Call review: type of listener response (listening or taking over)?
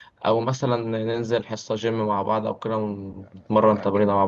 taking over